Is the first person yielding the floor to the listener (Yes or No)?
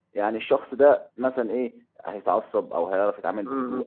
Yes